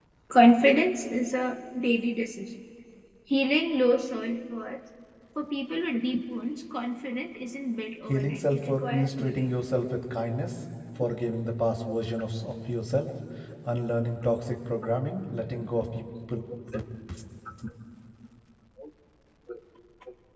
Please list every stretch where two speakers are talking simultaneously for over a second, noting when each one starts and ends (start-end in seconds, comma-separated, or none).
8.1-9.6